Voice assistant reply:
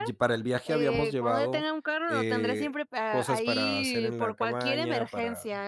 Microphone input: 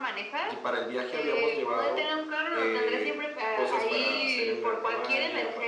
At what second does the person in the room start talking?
none

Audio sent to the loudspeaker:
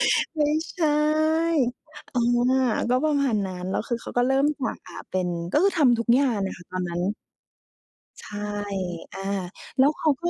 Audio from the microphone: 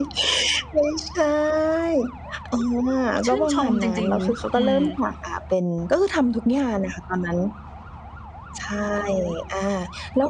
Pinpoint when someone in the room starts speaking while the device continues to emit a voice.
3 s

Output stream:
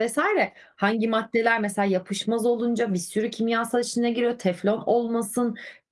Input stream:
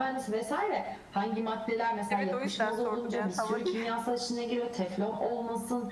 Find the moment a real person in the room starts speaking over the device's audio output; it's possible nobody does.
2 s

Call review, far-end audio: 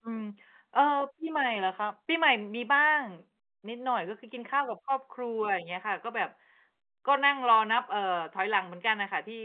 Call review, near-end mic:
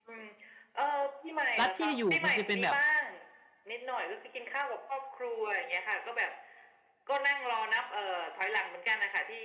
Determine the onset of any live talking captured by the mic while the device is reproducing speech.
2 s

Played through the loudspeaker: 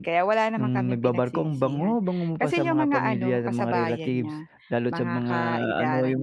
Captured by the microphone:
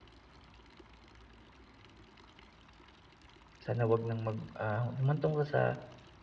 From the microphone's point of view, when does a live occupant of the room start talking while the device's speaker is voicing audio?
4 s

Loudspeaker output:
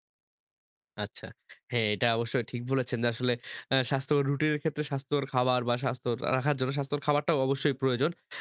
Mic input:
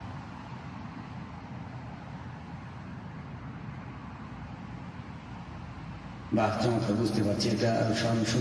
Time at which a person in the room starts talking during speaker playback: 6 s

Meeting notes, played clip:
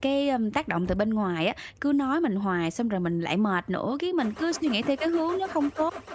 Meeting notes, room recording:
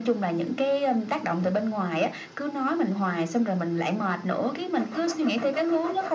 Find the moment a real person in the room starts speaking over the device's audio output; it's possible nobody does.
none

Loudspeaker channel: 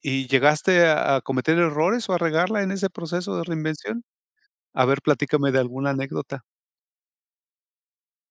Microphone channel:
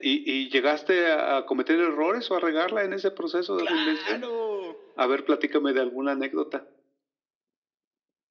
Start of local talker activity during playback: 4 s

